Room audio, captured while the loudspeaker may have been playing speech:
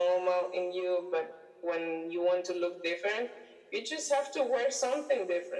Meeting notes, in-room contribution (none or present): none